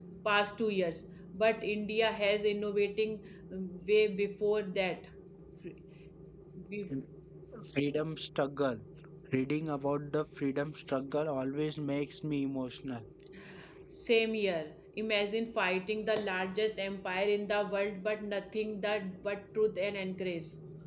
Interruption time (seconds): none

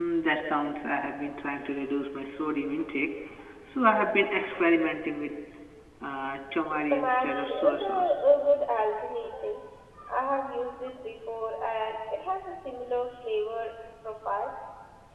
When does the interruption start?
7 s

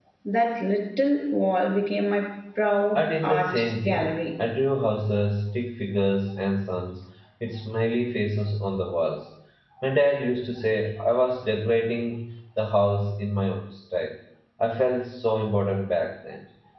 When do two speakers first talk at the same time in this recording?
3 s

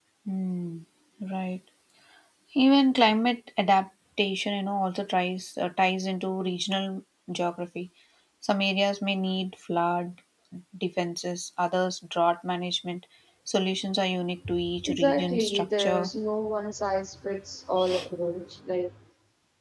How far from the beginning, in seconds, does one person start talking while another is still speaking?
15 s

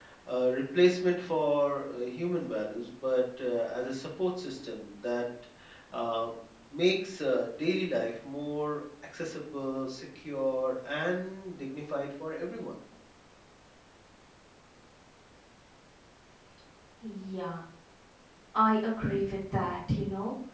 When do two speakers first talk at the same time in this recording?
none

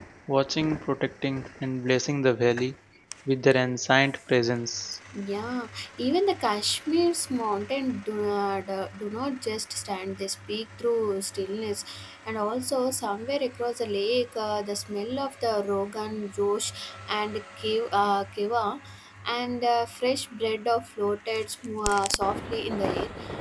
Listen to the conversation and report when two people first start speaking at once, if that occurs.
none

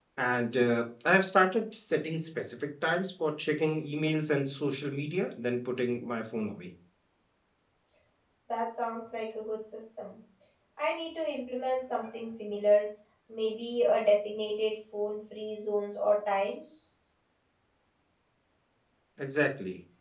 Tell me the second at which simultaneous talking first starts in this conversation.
none

